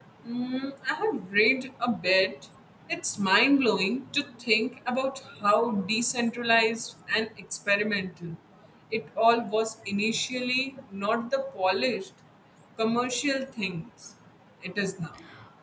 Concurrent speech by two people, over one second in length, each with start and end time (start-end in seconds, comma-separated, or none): none